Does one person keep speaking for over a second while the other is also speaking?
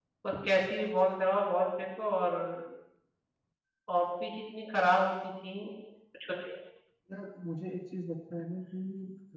No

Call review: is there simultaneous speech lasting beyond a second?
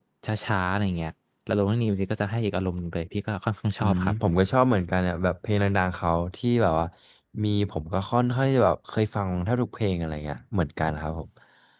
No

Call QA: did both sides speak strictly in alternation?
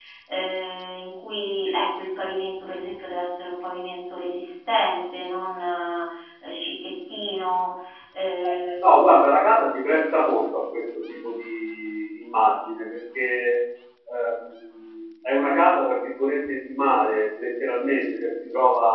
Yes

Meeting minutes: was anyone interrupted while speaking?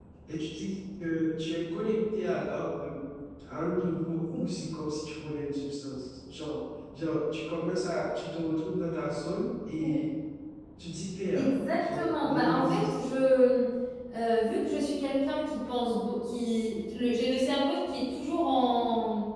Yes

